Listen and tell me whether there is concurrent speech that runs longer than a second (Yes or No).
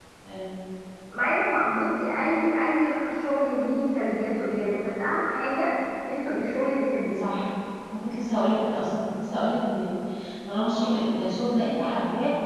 No